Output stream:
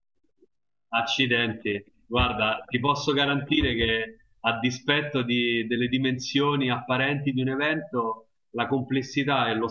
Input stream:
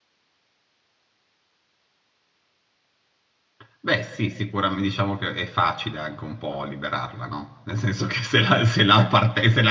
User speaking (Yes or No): Yes